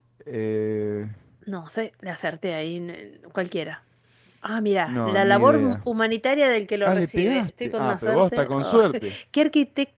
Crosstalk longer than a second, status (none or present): present